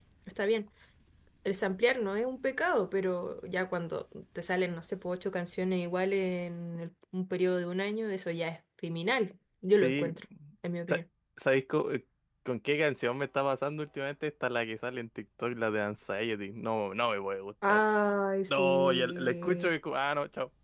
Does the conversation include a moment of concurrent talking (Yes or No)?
Yes